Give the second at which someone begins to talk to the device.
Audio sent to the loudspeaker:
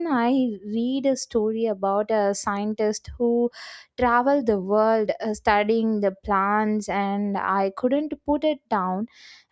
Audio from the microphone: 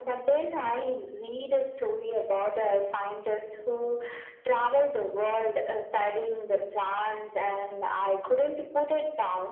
none

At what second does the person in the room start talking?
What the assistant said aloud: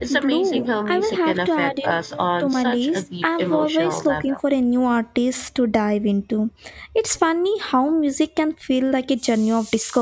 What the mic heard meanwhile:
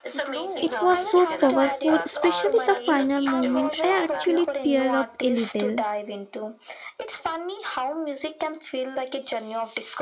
1 s

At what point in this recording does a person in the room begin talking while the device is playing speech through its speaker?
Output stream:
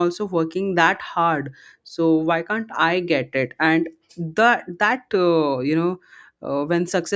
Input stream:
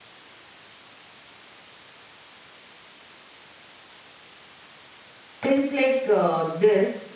5 s

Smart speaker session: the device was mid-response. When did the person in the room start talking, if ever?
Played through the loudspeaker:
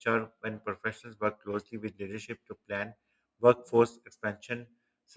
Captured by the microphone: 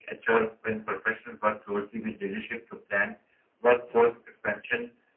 none

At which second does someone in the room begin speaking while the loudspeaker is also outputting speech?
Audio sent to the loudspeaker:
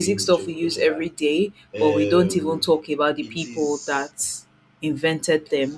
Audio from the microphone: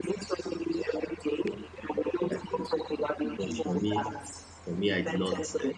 2 s

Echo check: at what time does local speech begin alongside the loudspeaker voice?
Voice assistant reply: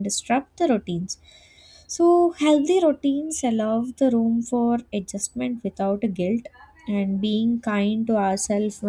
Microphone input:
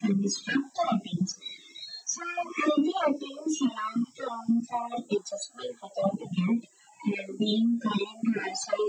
none

